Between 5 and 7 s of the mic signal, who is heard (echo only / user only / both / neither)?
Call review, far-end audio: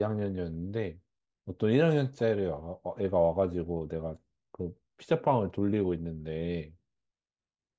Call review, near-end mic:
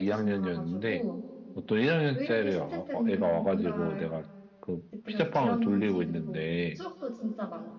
both